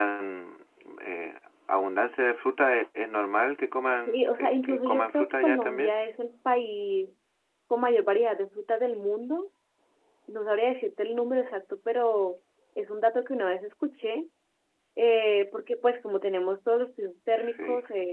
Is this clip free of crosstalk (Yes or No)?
No